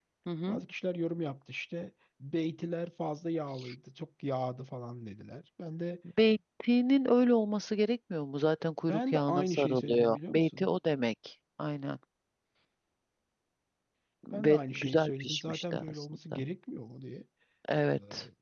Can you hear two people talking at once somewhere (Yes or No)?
Yes